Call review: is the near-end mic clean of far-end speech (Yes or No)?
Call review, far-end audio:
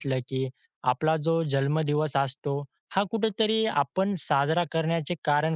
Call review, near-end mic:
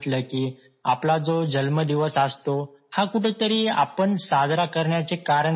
No